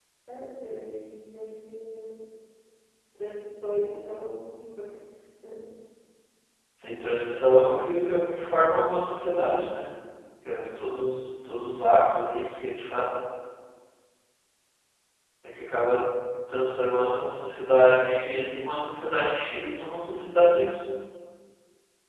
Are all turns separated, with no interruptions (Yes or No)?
Yes